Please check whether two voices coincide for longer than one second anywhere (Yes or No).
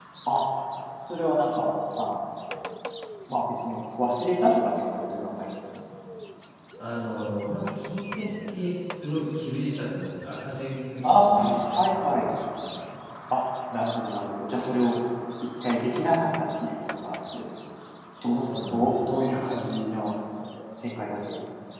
Yes